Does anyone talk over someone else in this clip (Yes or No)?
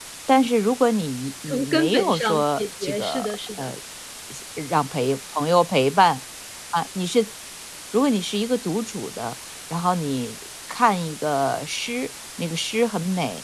Yes